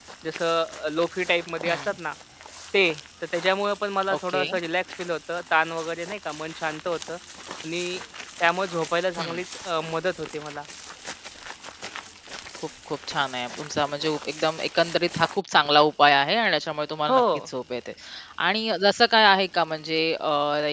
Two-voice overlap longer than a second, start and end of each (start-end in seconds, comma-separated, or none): none